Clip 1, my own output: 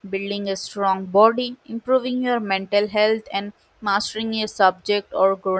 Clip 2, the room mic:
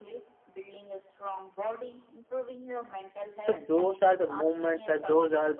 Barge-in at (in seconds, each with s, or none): 3.4 s